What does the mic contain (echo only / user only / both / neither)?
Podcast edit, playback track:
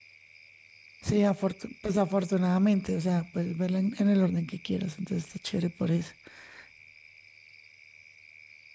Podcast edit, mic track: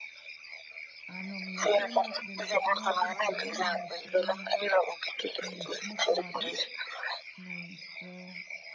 both